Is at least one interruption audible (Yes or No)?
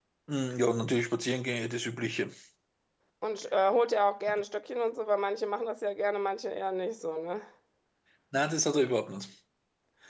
No